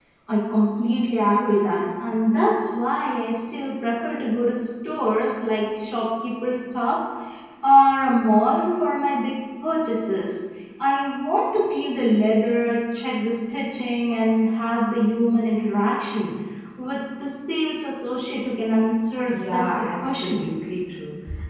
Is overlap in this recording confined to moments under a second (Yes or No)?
No